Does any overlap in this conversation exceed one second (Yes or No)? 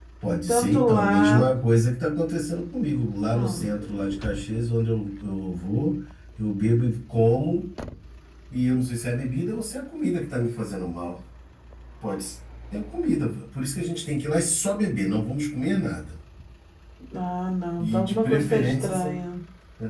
Yes